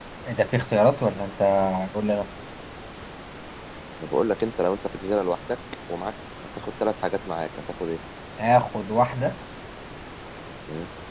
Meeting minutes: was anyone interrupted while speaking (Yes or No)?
No